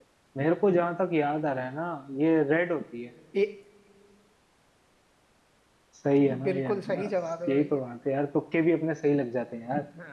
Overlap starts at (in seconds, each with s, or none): 6.4 s